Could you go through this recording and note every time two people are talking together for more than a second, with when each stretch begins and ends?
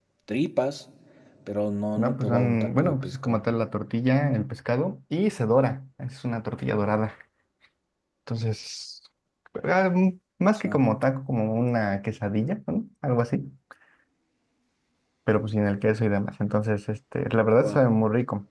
2.0-3.4

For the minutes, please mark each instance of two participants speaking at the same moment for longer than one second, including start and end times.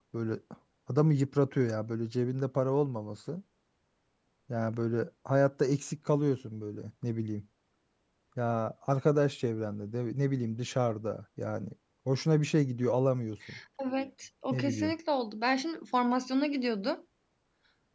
none

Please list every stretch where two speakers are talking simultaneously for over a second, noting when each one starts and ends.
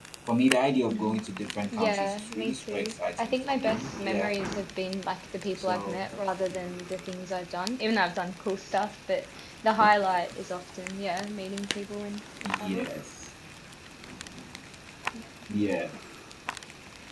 1.7-4.3

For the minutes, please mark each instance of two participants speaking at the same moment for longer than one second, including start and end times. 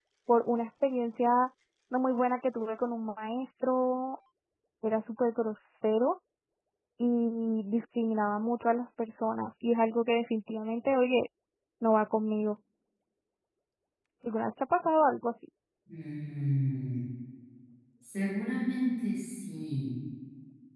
none

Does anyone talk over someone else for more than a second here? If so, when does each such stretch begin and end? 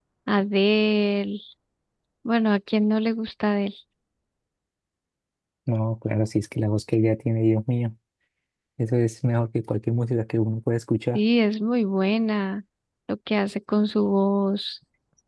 none

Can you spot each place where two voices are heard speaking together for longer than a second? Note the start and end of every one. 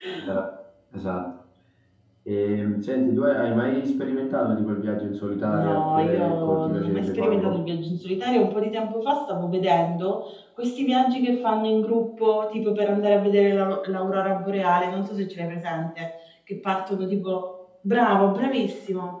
5.4-7.6

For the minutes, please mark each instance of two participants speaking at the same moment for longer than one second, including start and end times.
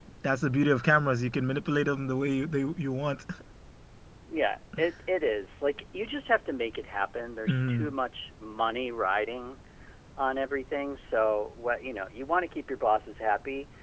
none

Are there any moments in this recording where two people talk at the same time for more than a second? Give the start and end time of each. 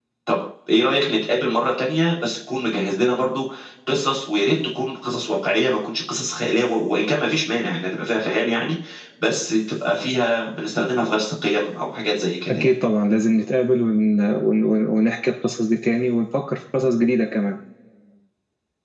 none

